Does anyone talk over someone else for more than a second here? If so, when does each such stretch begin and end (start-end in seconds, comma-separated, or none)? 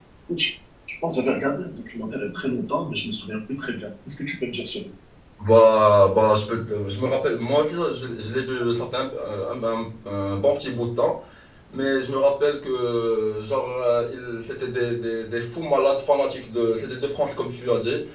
none